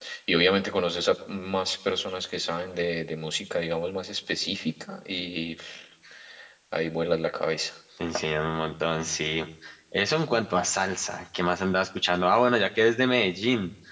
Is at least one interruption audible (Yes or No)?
No